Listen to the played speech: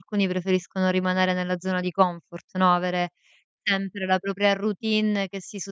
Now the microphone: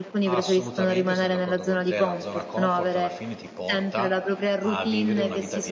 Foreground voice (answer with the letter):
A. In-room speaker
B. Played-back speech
B